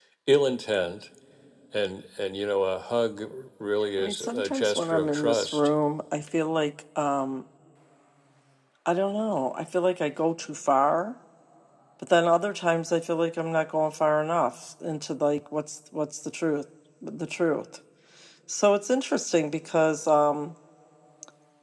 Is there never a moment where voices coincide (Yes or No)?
No